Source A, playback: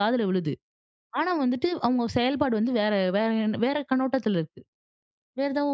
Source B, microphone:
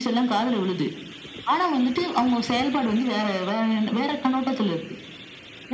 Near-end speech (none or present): none